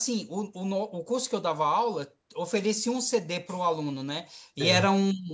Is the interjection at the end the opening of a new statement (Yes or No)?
No